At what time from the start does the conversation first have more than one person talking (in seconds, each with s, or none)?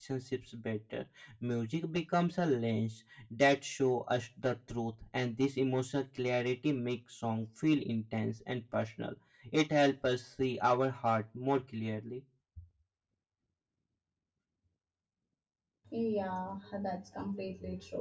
none